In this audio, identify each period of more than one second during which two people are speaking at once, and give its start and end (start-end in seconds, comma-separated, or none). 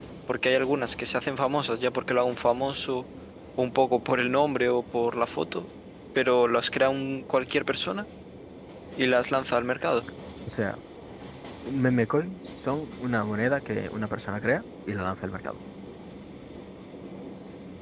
none